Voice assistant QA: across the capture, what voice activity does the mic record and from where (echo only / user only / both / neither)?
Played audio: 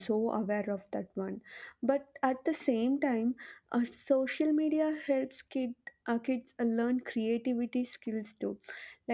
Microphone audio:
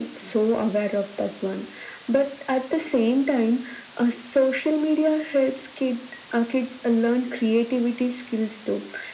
echo only